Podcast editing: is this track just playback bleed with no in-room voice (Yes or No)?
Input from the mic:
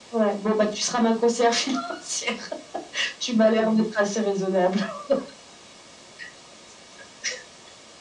Yes